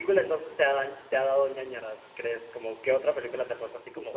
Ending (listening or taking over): taking over